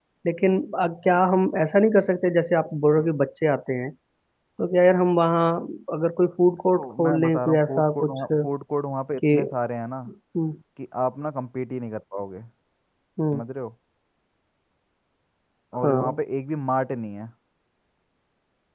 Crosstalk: present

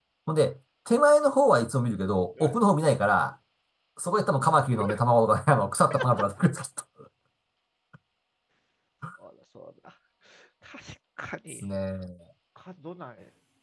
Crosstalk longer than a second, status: none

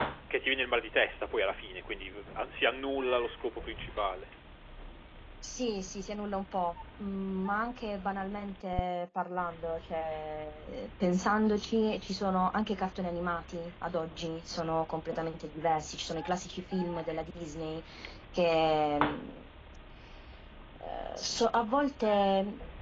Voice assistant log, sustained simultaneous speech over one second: none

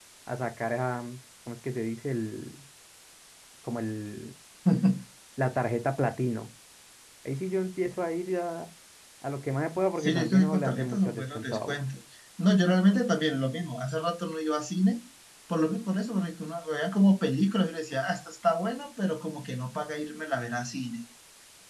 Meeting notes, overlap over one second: present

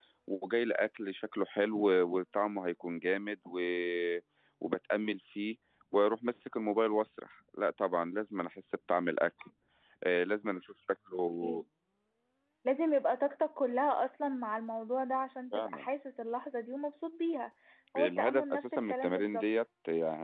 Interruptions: present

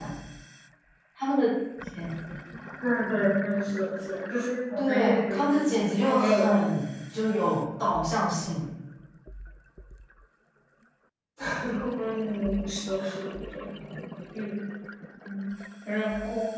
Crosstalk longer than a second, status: present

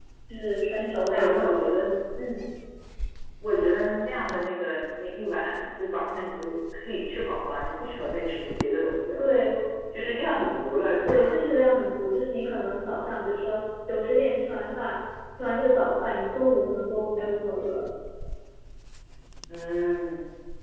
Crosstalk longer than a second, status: none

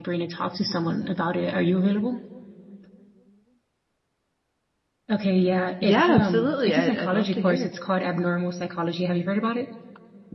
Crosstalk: present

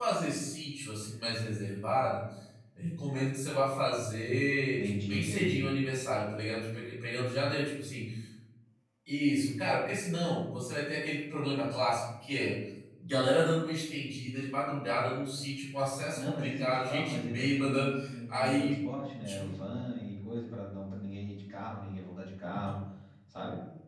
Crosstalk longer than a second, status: present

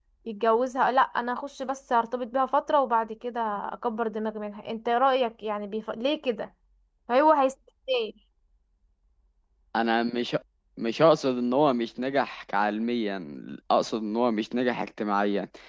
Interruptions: none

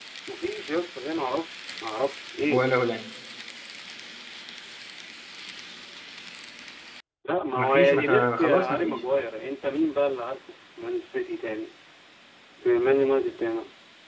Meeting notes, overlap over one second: present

